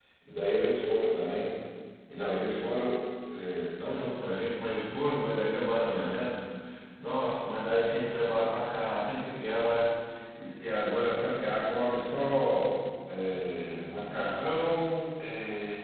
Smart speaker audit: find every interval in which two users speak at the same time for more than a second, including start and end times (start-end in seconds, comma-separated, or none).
none